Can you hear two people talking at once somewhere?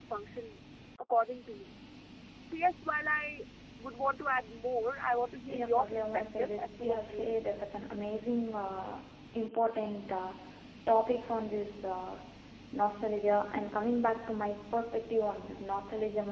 Yes, from 5.5 s

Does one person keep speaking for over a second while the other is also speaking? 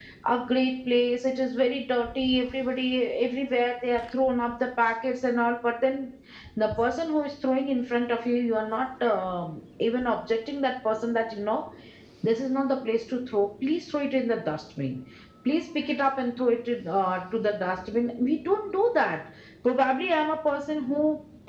No

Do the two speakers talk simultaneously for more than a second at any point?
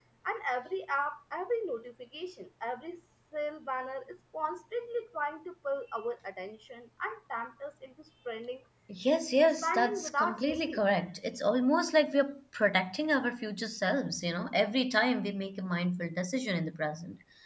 Yes, from 9.6 s

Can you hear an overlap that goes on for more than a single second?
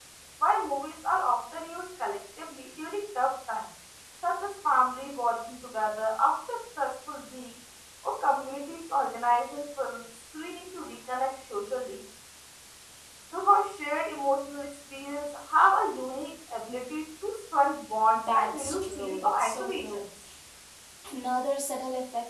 Yes, from 18.1 s

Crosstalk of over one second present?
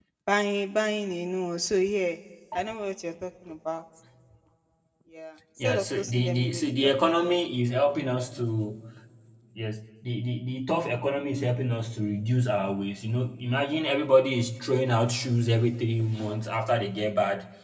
Yes, from 5.6 s

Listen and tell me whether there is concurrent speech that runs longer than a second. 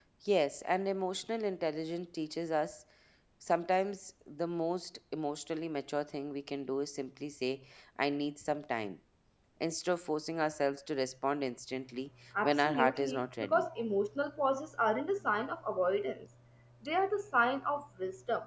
Yes, from 12.3 s

